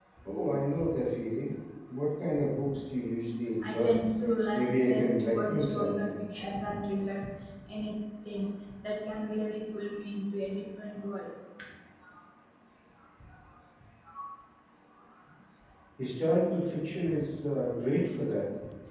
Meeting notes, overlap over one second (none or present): present